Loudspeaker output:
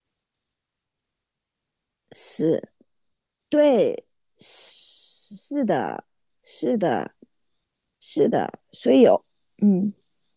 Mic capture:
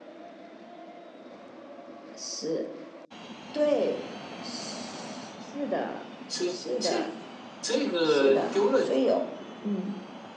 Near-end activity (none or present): present